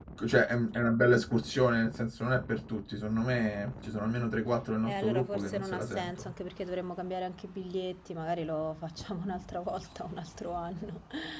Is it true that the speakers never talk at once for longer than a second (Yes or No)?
No